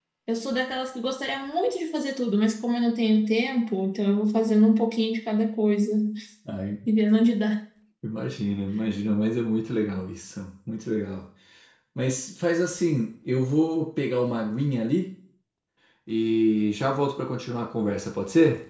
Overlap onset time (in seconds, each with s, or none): none